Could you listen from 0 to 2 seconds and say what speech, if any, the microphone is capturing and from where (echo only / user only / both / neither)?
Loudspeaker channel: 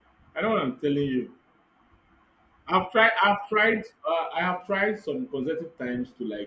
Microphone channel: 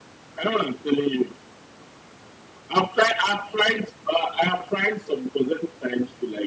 echo only